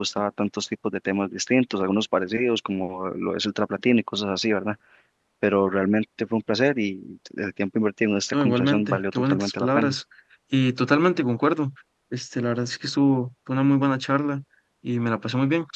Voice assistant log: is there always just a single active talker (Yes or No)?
No